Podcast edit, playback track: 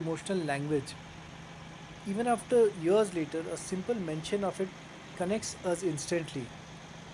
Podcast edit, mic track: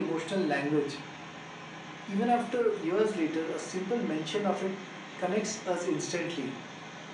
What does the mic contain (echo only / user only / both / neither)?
echo only